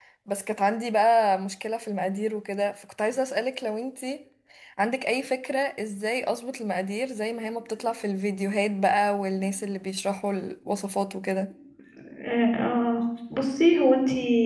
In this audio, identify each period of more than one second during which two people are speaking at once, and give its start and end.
none

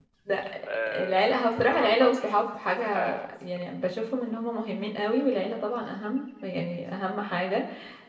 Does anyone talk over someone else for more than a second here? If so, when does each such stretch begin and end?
1.0-2.4

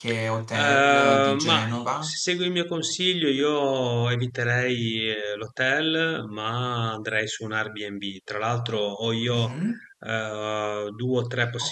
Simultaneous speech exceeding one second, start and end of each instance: 0.5-2.1

